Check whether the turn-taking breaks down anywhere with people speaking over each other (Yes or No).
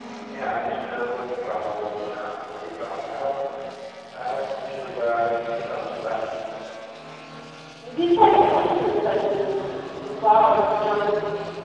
Yes